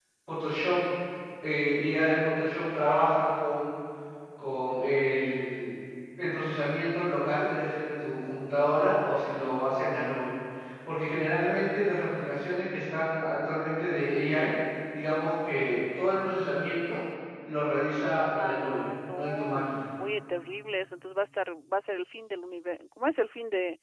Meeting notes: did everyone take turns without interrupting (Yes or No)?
No